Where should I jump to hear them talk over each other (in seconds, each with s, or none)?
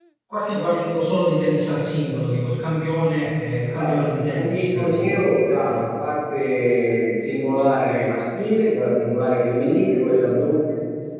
3.8 s